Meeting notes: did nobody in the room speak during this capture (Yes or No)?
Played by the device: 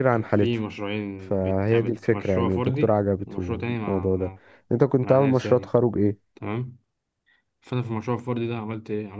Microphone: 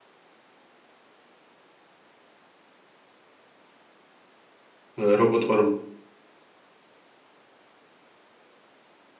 No